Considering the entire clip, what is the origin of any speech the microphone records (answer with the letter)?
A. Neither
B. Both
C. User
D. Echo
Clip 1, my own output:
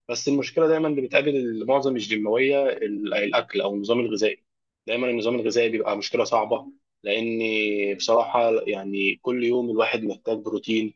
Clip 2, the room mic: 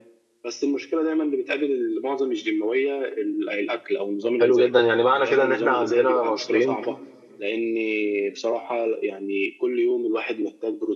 B